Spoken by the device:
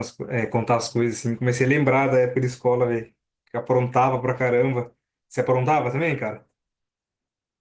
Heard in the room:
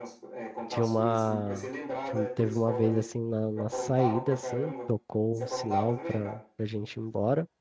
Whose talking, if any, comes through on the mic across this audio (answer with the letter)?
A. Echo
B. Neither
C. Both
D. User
C